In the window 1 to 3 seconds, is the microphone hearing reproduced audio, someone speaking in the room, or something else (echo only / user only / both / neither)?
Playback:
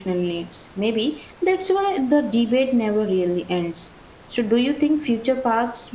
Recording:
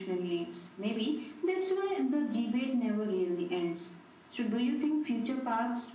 echo only